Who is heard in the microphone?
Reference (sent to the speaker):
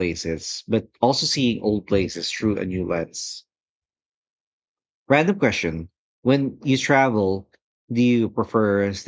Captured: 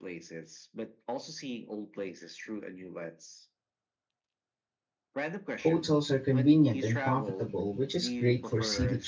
both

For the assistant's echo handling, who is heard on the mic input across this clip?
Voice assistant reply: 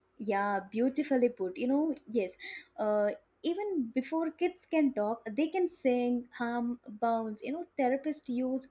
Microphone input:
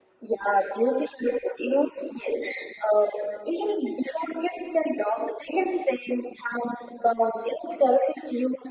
echo only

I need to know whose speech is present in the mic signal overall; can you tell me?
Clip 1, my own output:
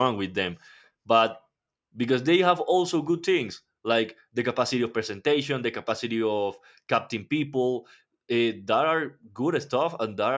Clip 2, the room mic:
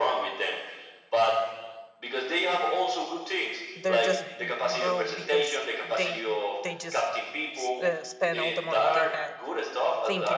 both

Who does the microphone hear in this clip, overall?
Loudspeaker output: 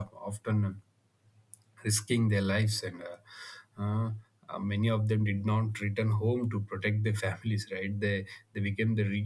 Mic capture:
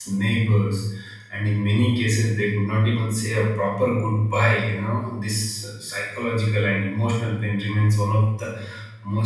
user only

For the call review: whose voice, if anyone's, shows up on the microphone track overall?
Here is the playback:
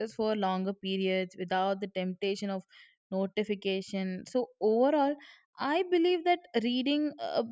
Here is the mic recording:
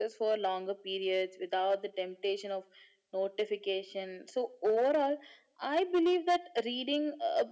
echo only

